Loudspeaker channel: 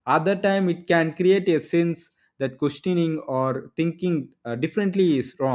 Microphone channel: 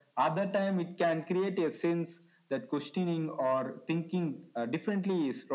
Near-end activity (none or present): none